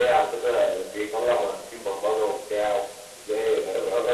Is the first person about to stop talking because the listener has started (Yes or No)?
Yes